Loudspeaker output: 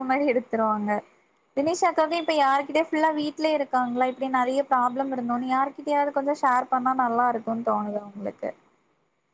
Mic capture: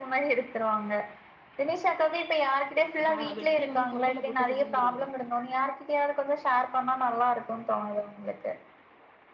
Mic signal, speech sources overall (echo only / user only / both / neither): both